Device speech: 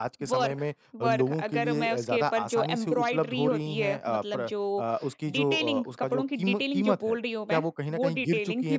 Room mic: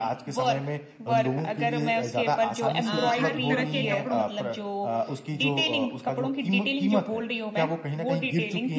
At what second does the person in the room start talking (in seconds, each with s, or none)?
2.8 s